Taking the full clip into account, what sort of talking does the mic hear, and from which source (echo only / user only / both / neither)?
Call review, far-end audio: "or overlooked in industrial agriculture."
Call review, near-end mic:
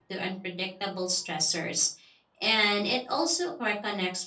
user only